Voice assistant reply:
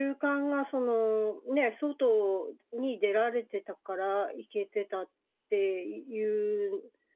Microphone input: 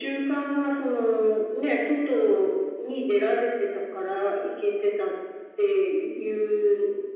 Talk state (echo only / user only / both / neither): echo only